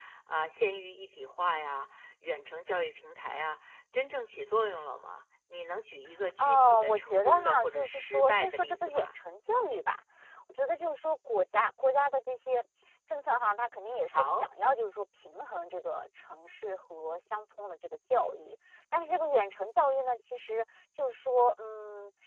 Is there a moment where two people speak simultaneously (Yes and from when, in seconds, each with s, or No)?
Yes, from 6.4 s